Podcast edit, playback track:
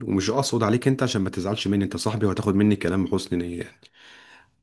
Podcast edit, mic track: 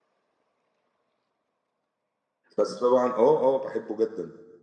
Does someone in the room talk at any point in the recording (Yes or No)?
Yes